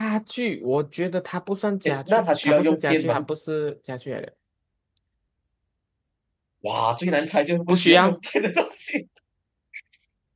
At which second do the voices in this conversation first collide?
1.9 s

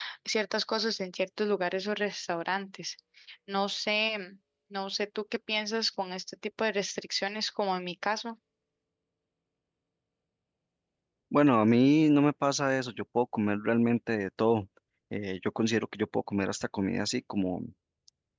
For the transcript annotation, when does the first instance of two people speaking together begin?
none

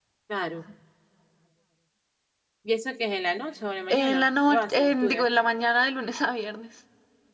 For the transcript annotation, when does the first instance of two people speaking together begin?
3.9 s

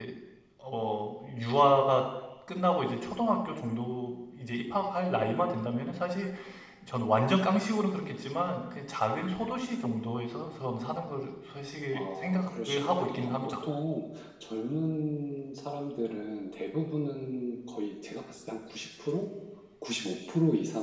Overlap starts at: 11.9 s

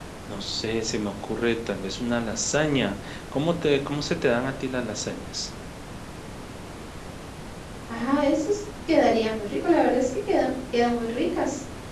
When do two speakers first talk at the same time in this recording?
none

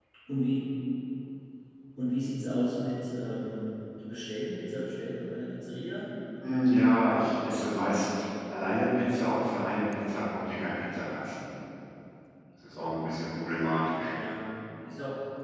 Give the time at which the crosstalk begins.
none

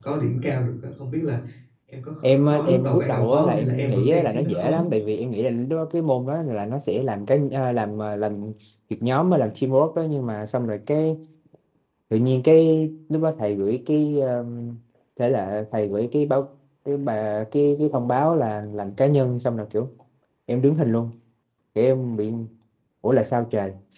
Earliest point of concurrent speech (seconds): 2.2 s

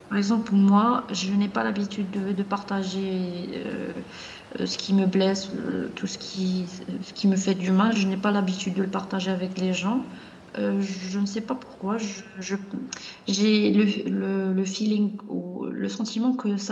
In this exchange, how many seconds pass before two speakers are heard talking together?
none

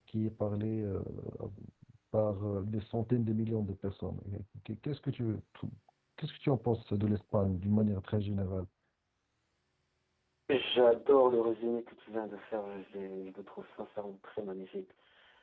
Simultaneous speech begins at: none

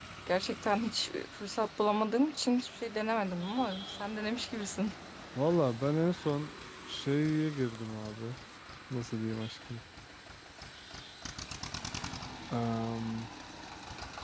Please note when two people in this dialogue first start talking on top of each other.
none

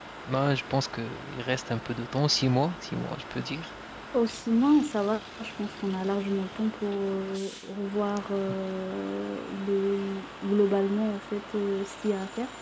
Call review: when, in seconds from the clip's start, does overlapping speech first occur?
none

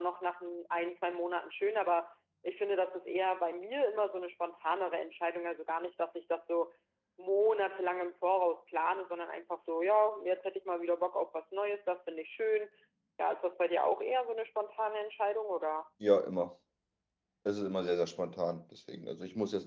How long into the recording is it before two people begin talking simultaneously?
none

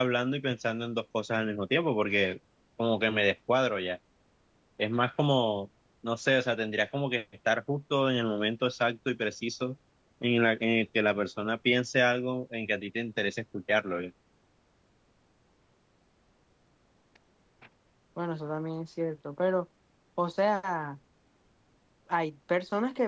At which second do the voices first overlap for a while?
none

